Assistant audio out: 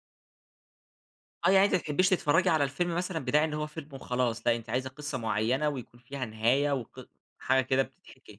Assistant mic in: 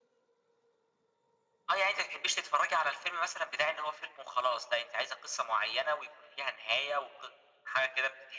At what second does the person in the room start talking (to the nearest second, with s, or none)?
none